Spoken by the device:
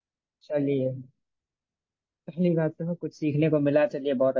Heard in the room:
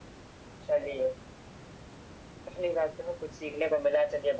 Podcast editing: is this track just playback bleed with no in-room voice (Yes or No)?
Yes